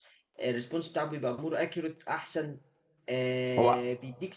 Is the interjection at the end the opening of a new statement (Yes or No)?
No